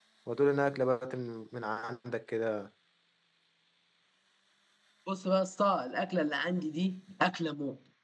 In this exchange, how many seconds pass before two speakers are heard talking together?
none

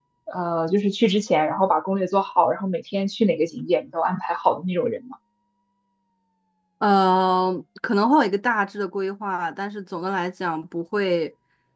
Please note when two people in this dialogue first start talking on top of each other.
none

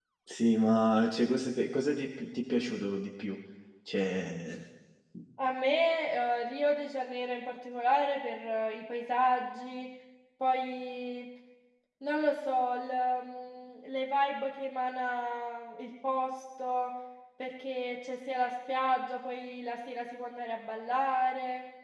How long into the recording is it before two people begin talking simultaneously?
none

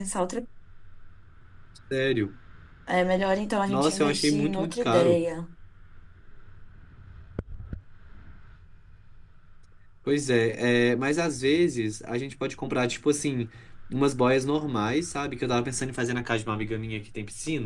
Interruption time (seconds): 3.7 s

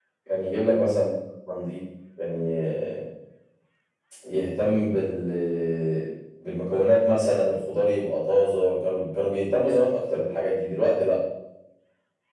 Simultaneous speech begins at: none

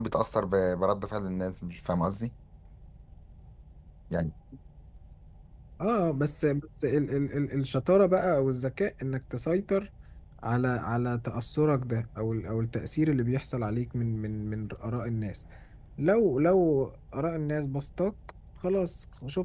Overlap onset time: none

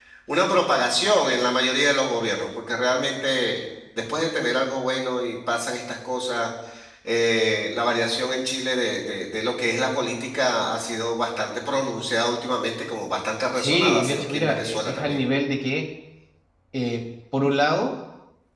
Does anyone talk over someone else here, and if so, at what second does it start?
13.6 s

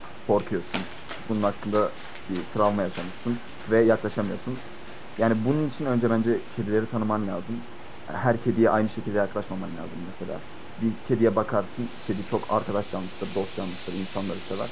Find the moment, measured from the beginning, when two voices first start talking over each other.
none

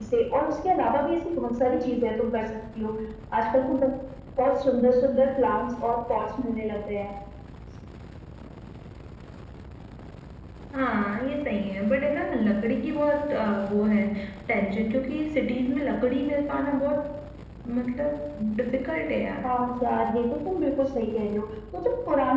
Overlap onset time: none

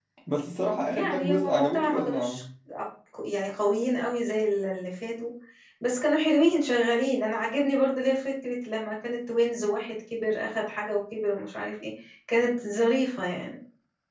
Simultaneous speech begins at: 0.9 s

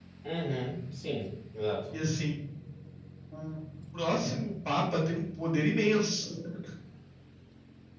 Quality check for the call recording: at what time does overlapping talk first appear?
none

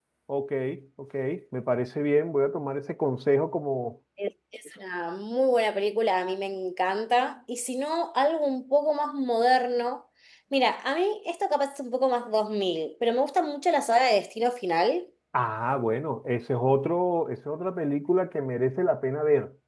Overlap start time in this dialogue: none

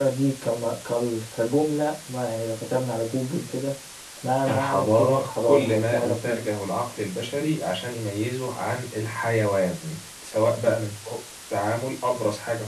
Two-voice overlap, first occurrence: 4.5 s

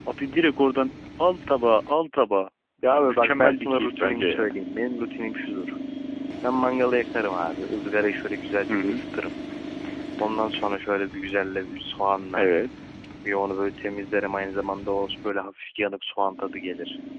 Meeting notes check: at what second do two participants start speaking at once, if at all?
2.9 s

